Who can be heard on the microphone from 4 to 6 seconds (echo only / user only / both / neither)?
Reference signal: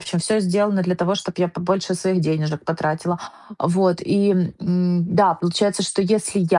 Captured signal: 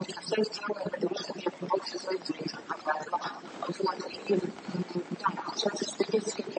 echo only